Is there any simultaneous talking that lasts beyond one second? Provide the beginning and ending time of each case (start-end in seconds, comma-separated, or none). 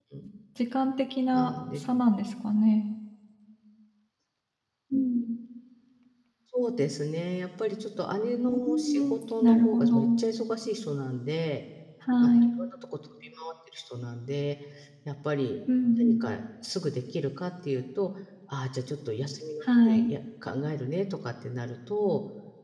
8.6-10.0